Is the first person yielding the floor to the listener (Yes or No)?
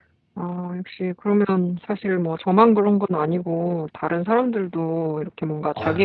No